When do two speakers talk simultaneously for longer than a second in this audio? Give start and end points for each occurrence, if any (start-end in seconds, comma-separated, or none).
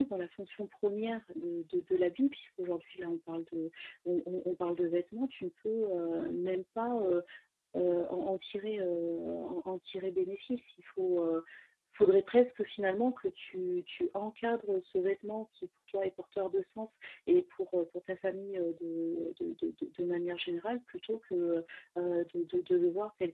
none